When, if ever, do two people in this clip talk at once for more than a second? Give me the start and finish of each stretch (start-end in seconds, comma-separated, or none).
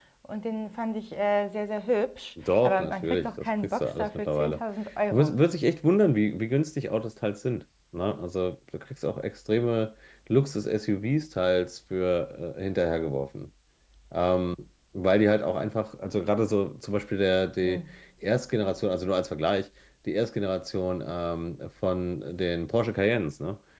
2.4-4.6